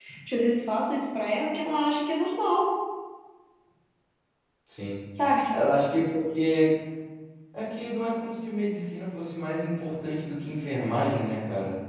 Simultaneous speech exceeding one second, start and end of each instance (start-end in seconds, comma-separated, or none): none